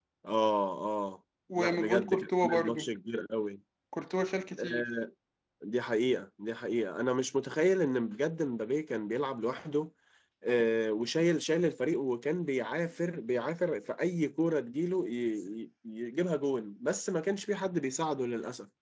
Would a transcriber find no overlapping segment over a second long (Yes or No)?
No